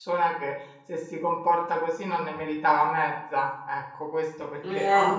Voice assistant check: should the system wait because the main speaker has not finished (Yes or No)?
Yes